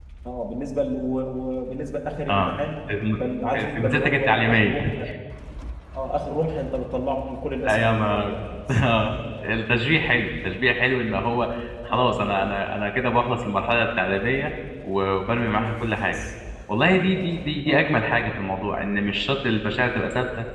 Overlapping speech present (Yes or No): Yes